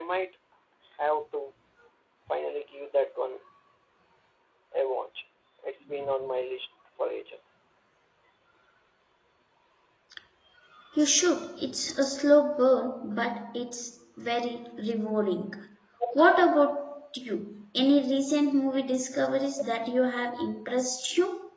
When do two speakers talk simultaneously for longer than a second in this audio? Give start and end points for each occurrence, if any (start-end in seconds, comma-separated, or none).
none